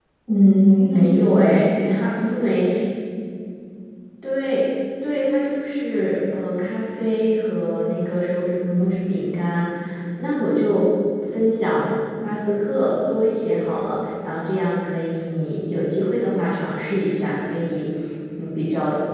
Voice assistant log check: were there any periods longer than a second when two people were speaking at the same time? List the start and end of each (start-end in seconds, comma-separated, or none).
0.7-2.7